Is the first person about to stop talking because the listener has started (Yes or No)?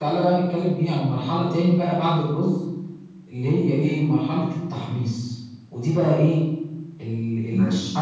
No